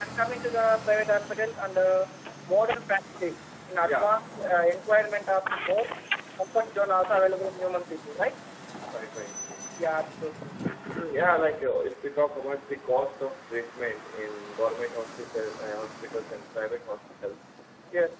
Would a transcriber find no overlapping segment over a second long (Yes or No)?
Yes